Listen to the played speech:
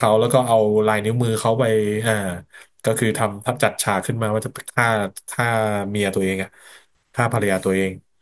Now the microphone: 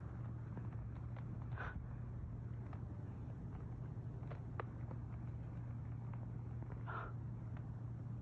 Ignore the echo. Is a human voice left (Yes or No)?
No